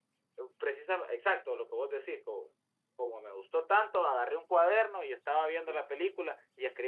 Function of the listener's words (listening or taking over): listening